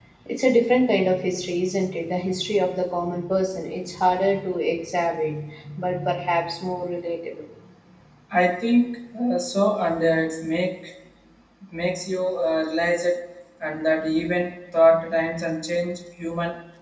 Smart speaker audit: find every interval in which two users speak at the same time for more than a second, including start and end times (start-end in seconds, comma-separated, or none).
none